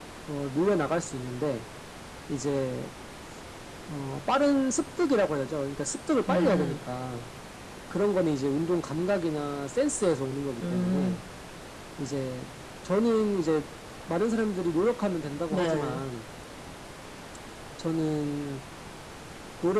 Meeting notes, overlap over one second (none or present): none